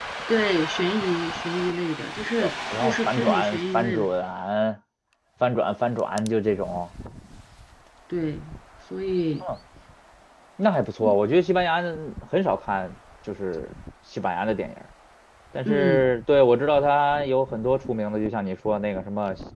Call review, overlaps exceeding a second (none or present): present